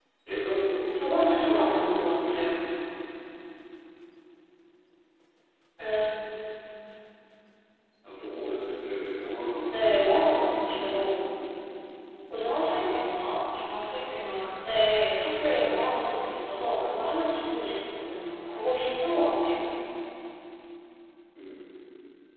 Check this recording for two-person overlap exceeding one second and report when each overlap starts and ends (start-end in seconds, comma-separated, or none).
0.9-2.5, 9.7-11.2